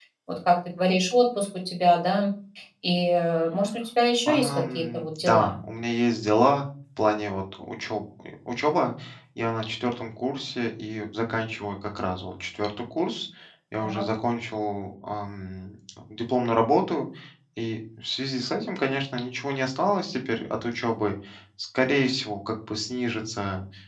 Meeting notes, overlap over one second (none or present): present